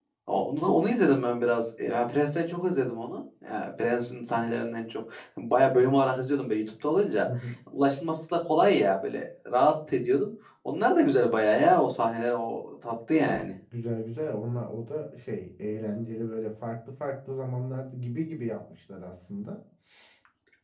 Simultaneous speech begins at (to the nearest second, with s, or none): none